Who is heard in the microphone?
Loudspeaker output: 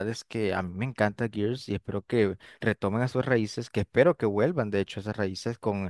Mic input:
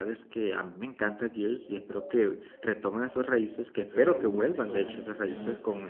both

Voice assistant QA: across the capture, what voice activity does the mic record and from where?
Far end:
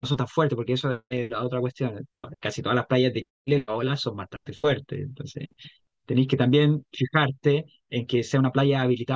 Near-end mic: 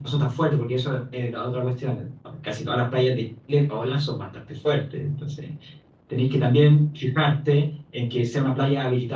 echo only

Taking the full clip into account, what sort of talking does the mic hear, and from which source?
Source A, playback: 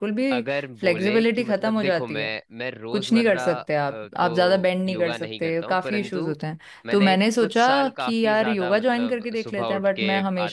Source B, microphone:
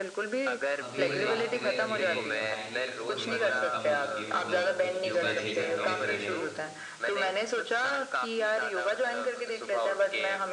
both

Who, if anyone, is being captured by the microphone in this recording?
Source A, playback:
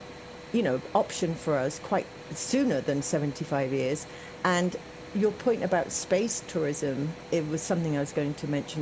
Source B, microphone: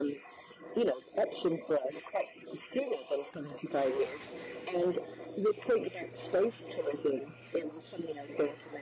echo only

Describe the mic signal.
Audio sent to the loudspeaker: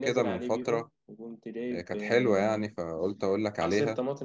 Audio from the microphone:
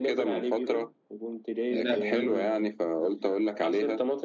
both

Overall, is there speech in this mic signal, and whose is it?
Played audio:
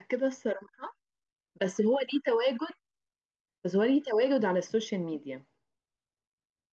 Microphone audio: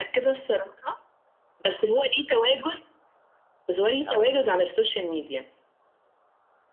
both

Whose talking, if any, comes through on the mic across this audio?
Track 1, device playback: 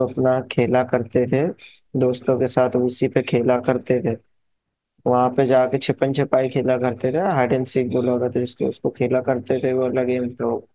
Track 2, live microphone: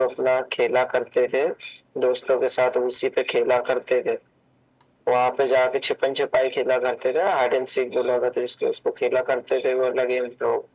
echo only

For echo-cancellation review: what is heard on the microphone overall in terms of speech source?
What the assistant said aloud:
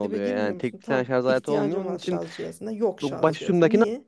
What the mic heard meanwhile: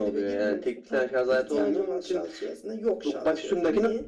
echo only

